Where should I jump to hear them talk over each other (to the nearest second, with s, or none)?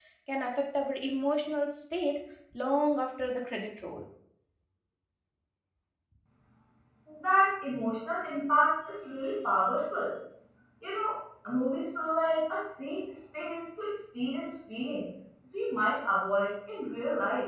none